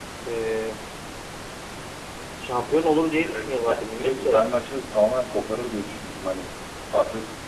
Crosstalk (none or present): present